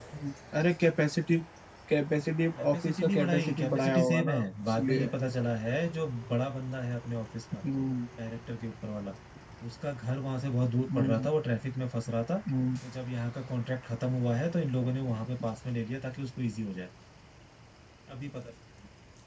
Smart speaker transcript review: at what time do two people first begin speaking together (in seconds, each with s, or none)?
2.5 s